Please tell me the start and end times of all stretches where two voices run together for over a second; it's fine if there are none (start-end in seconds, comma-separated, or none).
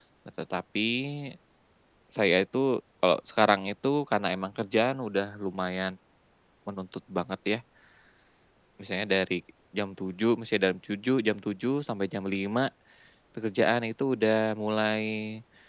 none